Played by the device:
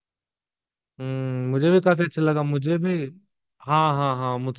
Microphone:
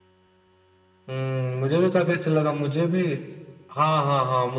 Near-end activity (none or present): none